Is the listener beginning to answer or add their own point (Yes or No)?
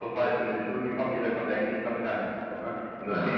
Yes